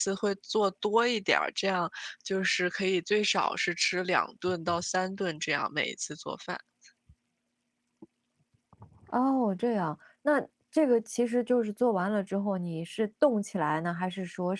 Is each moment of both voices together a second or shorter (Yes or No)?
Yes